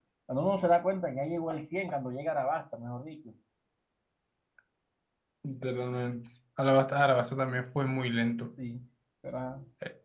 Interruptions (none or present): none